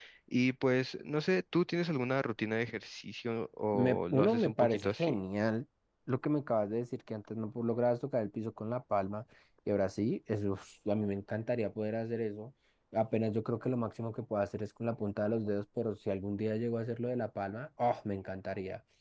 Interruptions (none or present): present